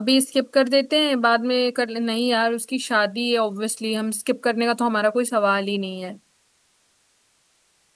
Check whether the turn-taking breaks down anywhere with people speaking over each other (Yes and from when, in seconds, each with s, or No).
No